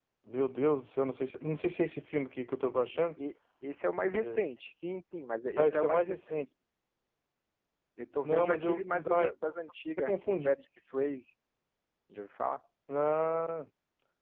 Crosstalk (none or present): present